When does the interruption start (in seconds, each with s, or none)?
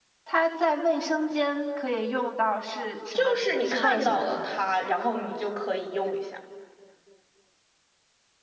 3.1 s